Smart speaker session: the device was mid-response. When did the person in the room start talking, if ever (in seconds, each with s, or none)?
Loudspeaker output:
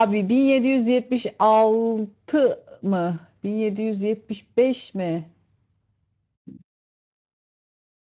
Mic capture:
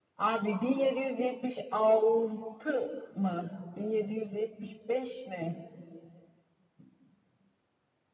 none